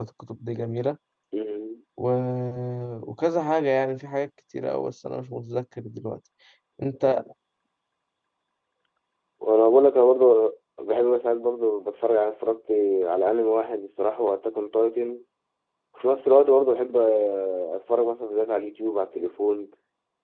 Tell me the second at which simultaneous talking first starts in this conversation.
none

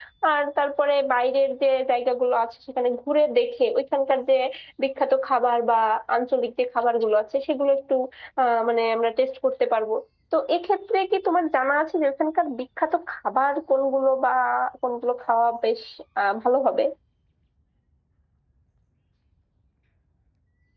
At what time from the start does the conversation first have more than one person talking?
none

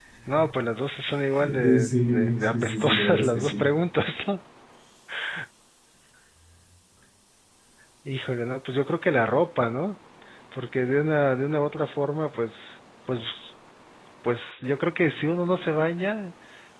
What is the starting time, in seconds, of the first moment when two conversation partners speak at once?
1.6 s

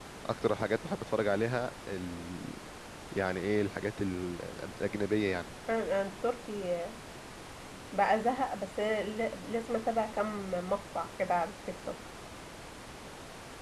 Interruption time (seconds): none

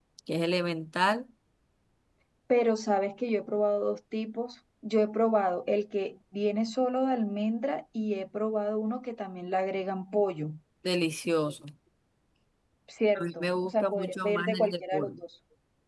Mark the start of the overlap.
13.2 s

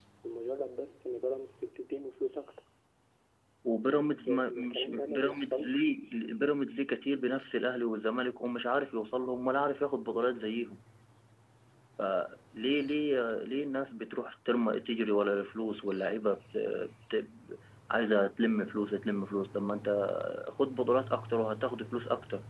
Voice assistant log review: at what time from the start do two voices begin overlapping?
4.2 s

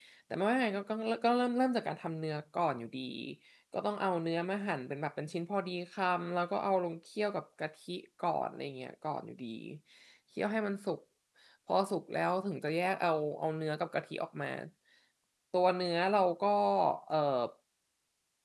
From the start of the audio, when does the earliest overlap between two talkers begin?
none

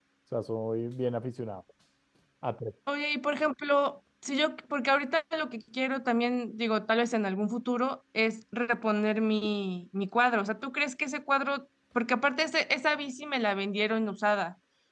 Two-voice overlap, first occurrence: none

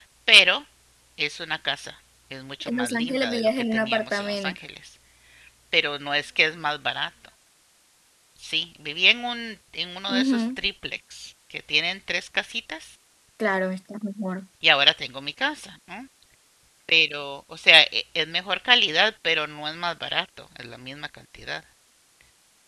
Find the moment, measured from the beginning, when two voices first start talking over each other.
2.6 s

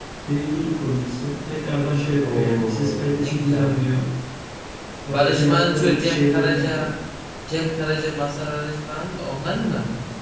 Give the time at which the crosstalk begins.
2.2 s

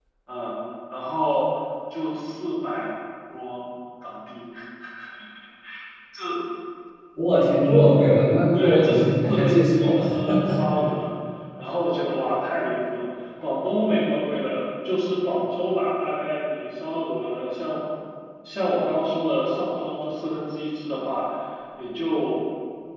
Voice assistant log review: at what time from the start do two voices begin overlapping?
8.5 s

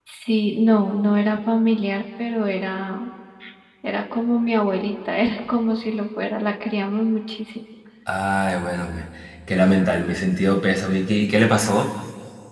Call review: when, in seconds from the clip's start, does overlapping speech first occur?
none

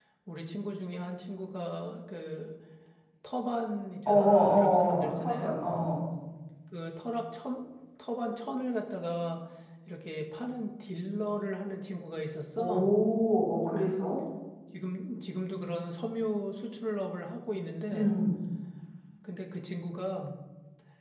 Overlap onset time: 4.1 s

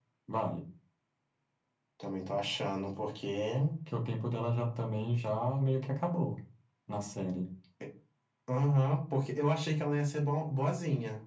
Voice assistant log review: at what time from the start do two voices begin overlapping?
none

